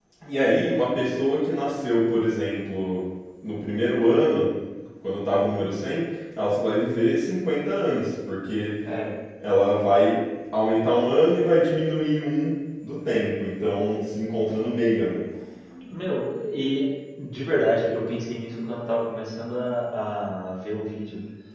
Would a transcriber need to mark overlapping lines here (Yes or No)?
No